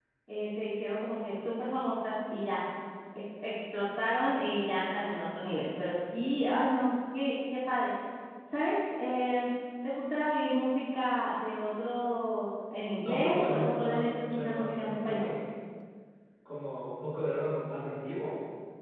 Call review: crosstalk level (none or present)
present